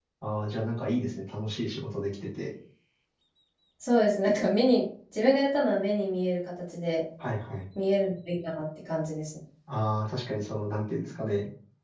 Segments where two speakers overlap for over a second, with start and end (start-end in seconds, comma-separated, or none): none